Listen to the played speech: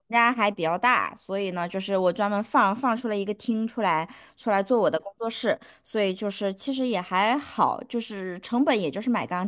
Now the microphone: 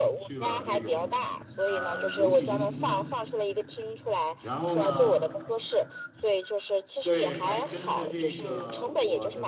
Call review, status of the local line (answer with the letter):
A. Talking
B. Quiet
A